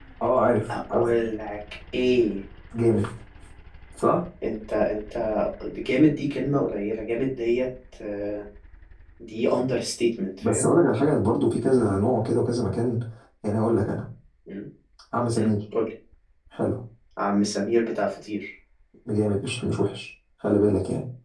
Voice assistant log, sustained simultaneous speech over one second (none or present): none